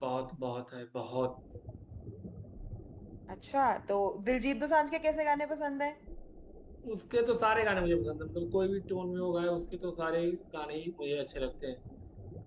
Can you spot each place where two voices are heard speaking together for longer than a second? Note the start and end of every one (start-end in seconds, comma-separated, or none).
none